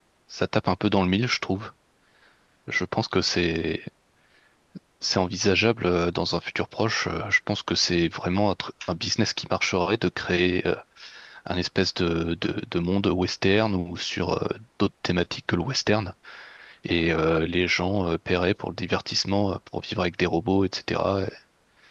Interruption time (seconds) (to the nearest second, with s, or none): none